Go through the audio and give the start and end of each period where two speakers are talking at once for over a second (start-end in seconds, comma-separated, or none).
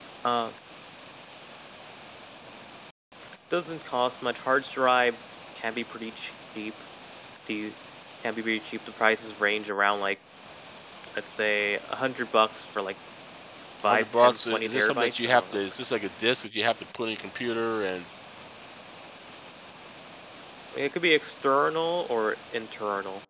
13.8-15.6